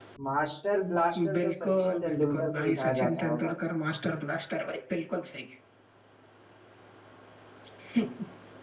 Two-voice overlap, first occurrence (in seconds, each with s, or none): 1.1 s